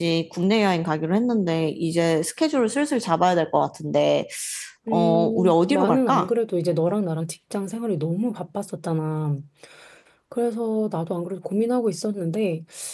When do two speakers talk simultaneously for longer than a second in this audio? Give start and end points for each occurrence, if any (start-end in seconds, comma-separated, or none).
4.9-6.3